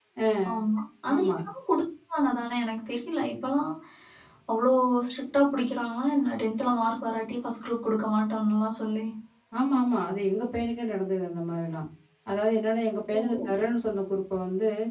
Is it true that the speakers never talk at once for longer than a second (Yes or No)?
Yes